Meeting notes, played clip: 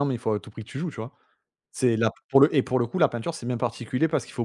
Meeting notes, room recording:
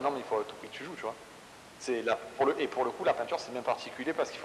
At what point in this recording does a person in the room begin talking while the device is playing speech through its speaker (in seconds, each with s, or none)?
none